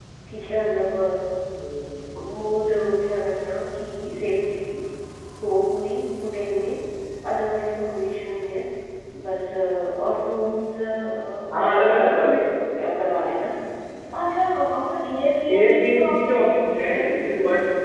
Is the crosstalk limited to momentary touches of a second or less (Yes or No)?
No